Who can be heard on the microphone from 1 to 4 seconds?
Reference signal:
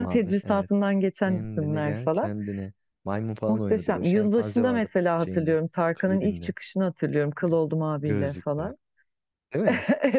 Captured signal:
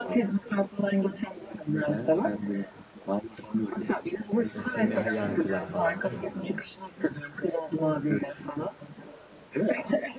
echo only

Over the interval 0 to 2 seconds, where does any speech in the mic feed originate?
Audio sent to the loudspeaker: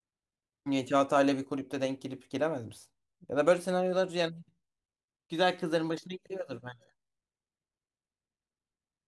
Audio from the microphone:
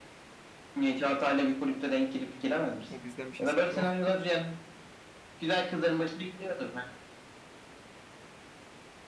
echo only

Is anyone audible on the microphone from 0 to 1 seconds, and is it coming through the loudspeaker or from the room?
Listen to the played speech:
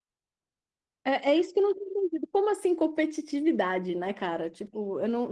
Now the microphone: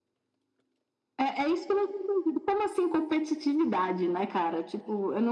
neither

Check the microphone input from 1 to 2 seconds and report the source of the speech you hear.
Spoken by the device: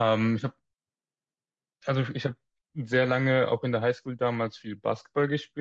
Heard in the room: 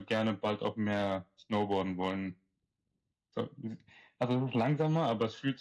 user only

